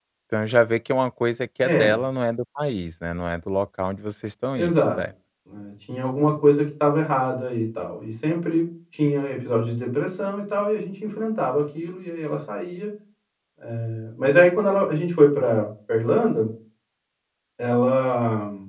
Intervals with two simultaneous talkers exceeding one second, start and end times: none

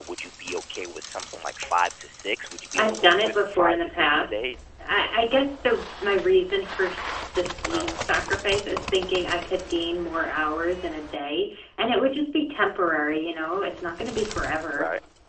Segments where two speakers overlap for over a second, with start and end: 2.8-4.4

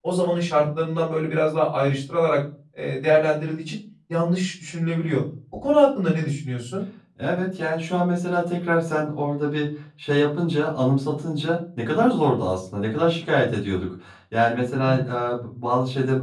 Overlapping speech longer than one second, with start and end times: none

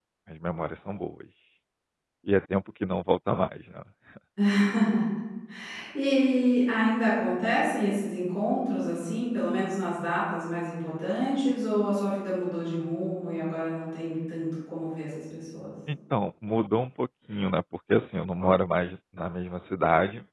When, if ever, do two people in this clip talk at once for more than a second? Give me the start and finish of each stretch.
none

